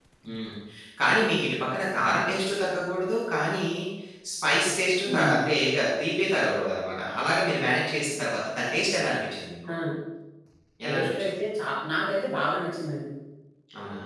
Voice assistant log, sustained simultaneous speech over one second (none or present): none